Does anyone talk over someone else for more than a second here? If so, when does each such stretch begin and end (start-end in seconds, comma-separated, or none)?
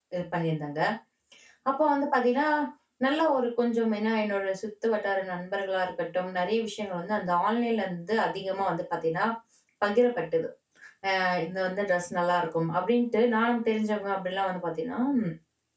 none